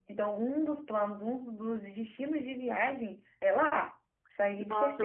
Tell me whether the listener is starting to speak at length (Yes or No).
Yes